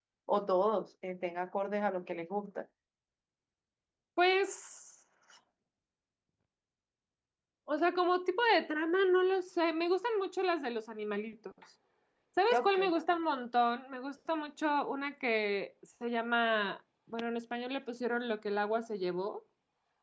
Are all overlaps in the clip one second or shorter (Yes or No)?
Yes